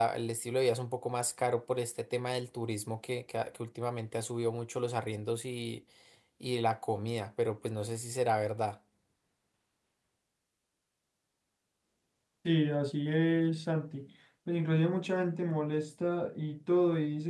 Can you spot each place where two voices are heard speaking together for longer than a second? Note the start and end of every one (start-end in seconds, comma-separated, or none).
none